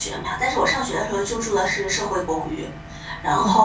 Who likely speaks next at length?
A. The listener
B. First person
B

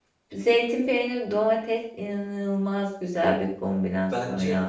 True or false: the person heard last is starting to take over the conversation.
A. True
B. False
A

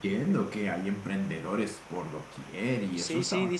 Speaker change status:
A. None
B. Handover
B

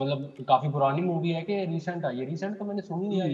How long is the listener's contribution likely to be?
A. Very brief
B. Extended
B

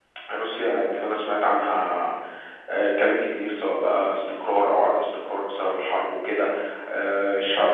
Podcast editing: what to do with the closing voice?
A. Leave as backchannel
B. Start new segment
A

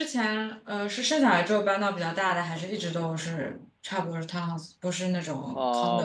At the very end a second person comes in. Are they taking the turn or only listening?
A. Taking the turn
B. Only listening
A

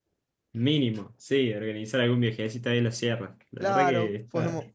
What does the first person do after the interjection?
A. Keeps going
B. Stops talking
B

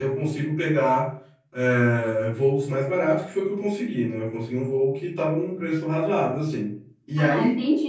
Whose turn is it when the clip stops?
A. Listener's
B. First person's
A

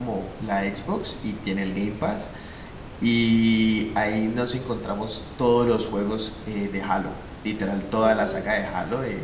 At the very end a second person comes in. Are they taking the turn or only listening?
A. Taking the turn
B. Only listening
B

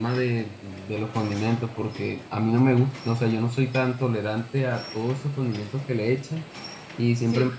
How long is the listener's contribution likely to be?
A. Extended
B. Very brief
B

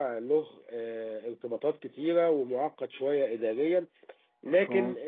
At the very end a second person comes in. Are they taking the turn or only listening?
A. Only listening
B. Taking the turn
A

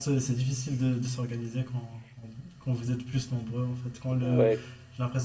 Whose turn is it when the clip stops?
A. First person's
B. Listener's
A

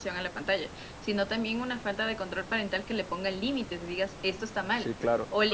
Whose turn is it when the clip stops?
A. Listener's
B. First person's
B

